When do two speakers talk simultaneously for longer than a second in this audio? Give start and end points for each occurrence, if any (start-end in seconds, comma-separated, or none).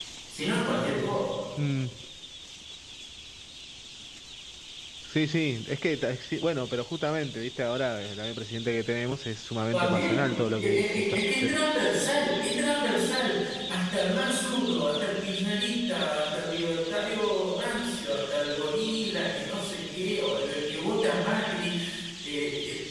9.7-11.6